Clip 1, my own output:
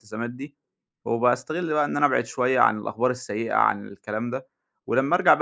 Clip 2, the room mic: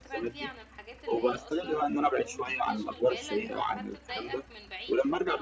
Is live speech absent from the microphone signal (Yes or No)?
No